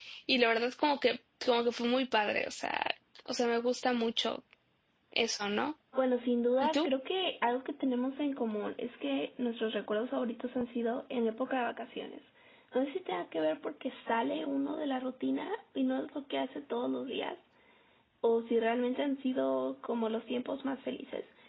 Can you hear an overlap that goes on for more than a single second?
No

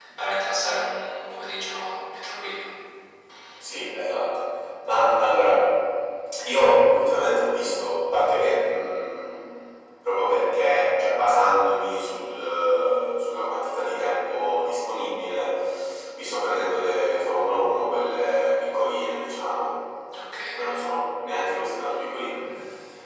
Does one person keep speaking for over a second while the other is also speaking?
No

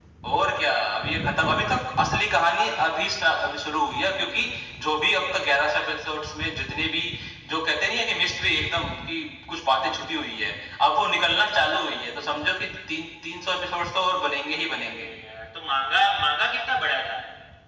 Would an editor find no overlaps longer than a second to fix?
Yes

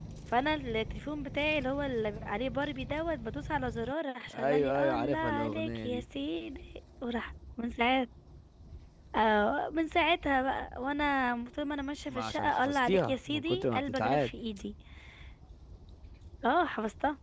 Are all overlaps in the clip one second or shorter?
No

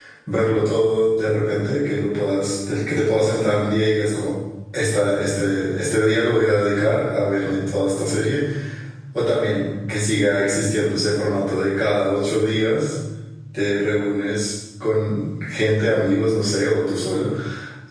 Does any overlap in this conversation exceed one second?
No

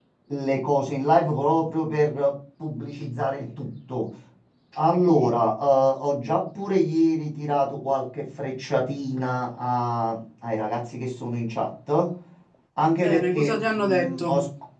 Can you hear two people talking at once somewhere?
Yes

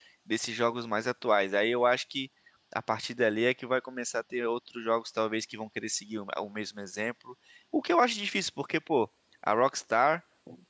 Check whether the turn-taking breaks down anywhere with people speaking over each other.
No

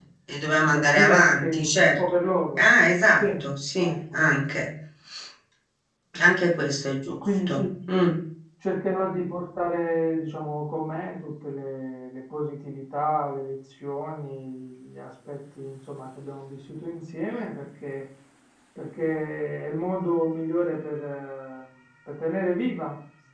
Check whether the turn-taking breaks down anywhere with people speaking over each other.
Yes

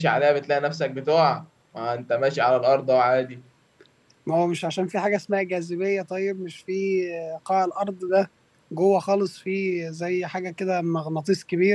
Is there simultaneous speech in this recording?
No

